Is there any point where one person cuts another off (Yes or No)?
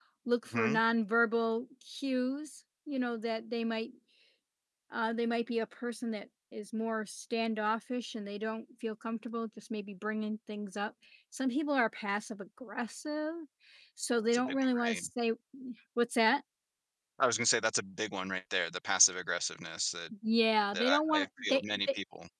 Yes